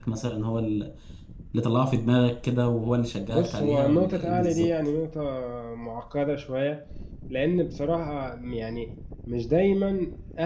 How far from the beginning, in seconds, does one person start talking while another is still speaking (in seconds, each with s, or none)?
3.3 s